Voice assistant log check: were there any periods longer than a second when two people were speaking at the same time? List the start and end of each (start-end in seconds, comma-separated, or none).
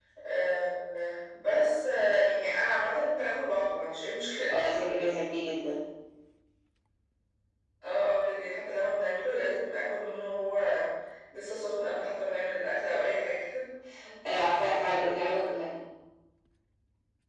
none